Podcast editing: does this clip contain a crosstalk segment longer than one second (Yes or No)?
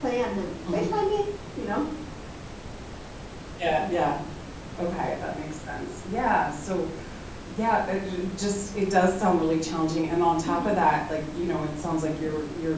No